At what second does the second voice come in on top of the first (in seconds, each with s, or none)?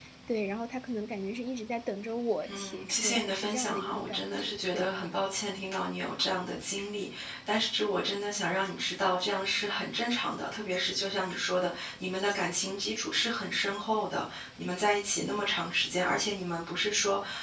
2.4 s